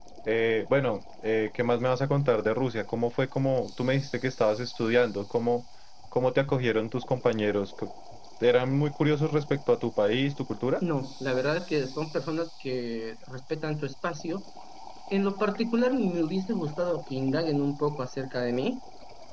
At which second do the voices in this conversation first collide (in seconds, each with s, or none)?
none